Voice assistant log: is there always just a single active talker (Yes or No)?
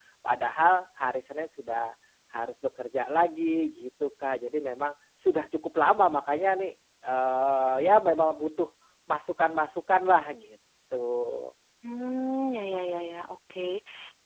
Yes